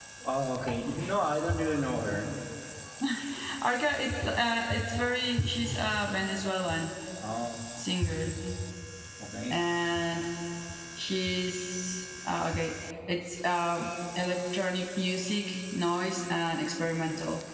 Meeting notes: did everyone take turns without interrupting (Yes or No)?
Yes